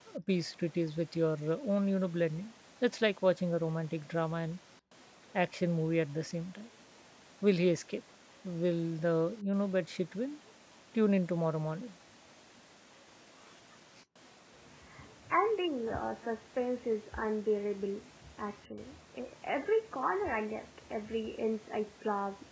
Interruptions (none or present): none